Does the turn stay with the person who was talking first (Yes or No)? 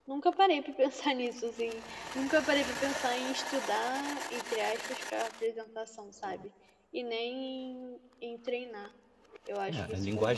No